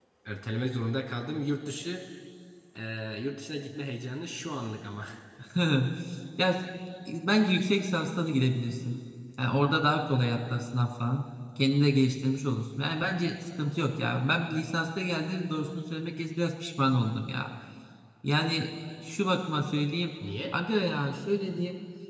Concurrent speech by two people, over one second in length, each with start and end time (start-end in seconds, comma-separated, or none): none